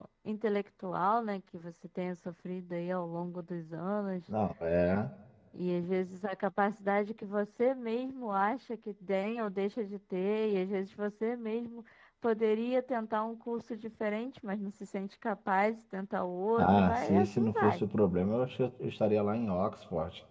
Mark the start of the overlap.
17 s

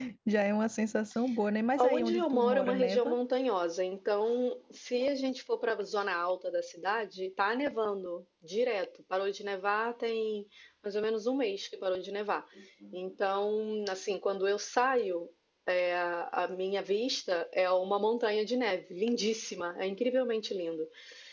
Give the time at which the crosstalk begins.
2 s

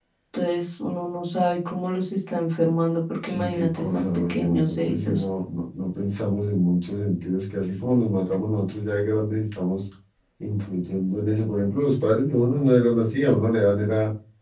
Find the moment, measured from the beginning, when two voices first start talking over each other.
3 s

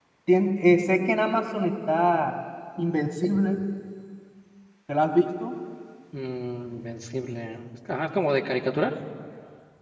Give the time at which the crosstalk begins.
none

